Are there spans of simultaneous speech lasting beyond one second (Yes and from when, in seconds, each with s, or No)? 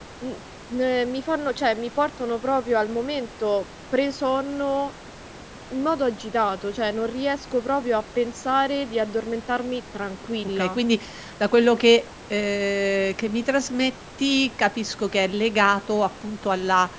No